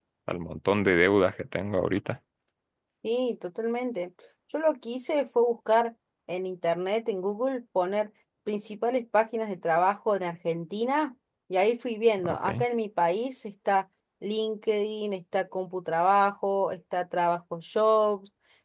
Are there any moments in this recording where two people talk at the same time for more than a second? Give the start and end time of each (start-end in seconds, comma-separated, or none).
none